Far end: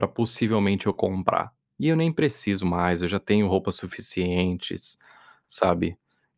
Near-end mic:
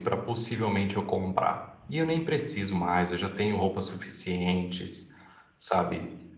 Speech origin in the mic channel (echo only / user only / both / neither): echo only